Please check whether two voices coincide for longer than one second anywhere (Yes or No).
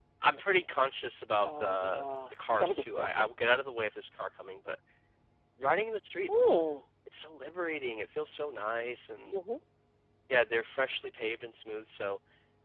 Yes